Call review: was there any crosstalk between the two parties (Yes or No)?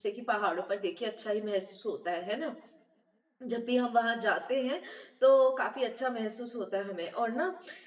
No